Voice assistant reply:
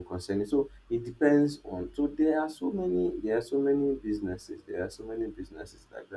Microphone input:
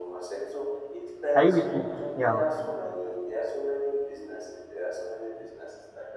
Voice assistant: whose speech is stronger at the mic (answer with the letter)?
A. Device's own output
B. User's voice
B